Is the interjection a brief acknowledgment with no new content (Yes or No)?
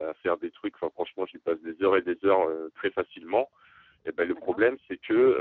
Yes